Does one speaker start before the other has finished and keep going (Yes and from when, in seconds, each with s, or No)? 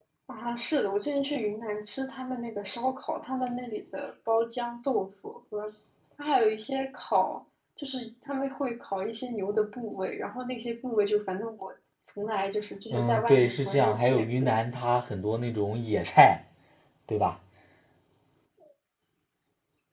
Yes, from 12.9 s